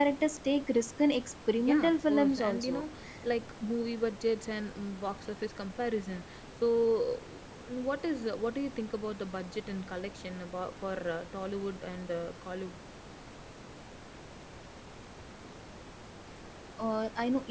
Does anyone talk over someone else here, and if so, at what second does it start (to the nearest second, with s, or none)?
2 s